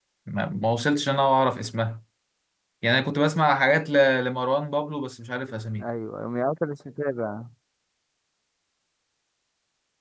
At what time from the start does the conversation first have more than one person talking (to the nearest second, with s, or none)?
none